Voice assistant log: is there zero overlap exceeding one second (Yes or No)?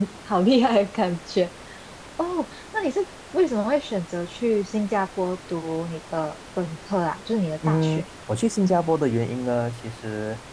Yes